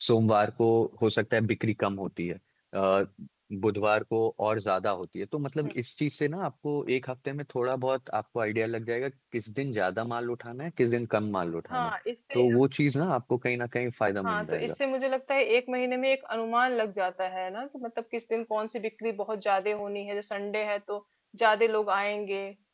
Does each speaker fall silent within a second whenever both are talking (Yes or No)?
Yes